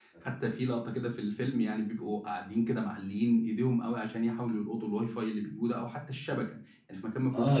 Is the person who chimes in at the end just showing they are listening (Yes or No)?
No